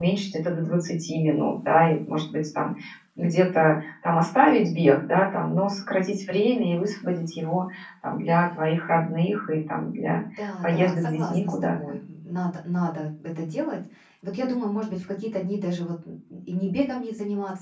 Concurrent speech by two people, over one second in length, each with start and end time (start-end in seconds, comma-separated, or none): 10.6-11.9